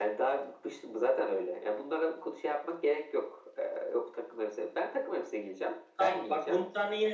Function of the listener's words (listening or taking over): taking over